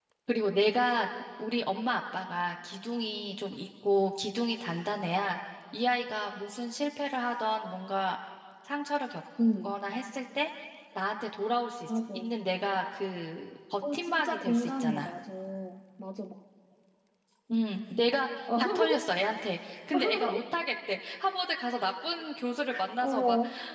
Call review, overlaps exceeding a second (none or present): present